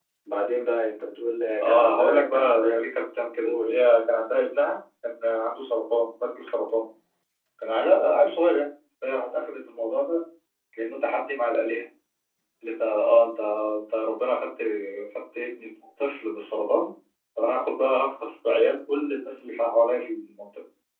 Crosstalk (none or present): present